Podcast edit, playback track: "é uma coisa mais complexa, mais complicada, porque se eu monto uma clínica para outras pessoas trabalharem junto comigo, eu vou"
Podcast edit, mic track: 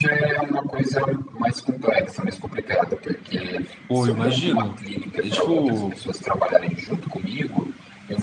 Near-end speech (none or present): present